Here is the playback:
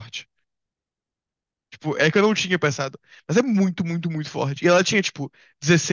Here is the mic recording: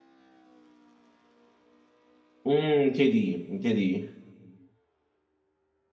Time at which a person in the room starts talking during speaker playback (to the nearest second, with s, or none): 2 s